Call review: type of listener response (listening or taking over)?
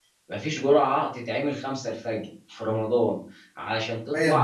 listening